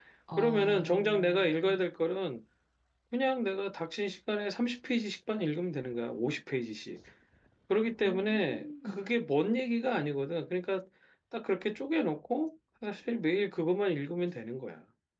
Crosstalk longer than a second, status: present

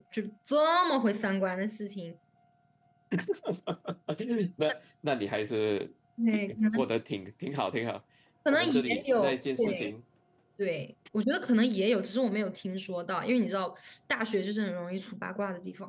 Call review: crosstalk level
present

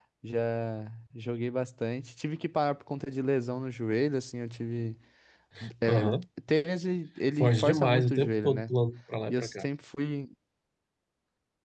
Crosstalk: present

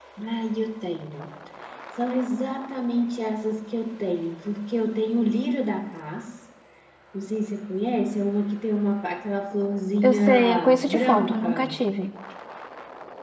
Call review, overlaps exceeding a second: present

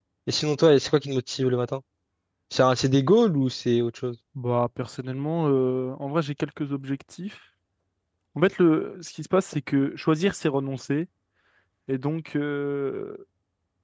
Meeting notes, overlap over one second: none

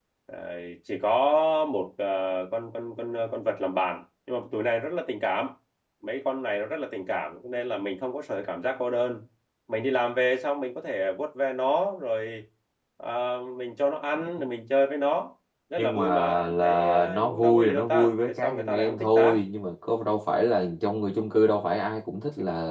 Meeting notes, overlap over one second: present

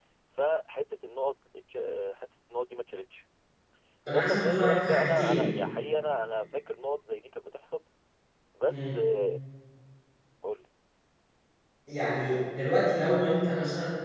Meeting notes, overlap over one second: present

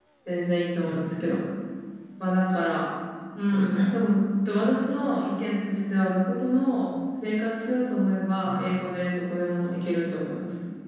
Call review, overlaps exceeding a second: none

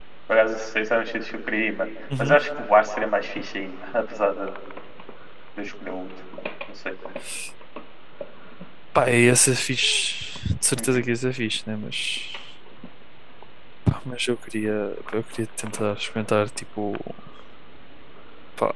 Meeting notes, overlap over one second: none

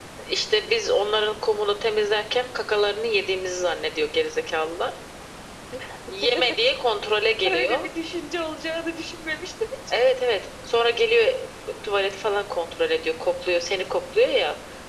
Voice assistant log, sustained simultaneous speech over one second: none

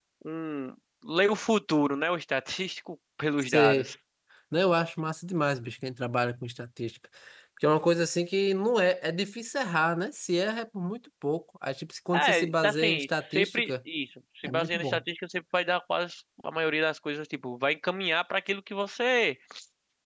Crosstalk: present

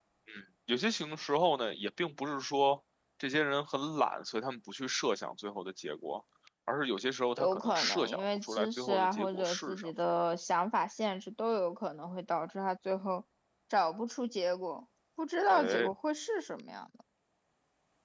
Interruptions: present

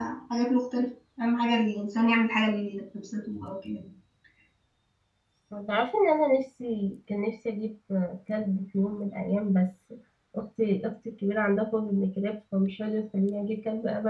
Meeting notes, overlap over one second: none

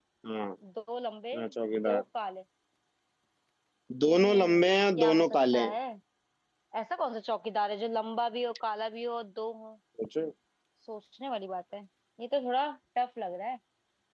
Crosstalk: present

